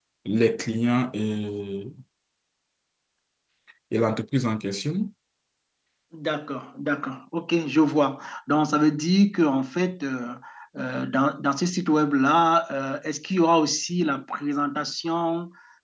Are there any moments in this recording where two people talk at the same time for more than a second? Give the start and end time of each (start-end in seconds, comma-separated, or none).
none